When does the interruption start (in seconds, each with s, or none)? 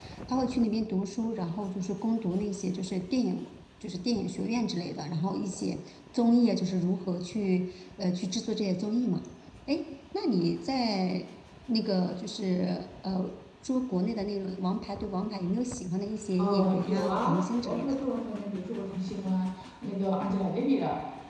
16.4 s